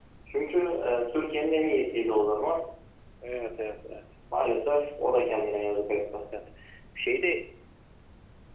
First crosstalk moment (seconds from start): none

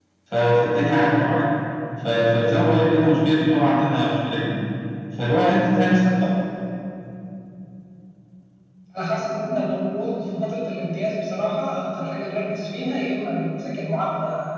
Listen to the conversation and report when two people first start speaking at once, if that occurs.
none

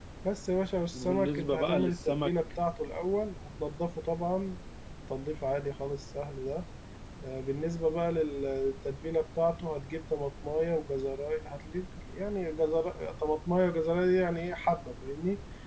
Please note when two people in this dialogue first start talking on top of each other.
1 s

